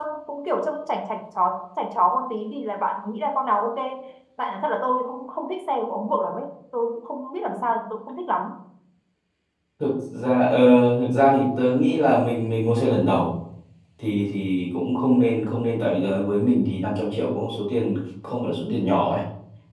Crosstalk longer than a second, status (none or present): none